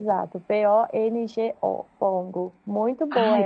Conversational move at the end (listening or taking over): listening